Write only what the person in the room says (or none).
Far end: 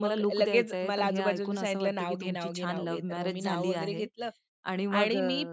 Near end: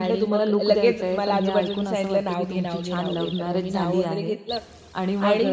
none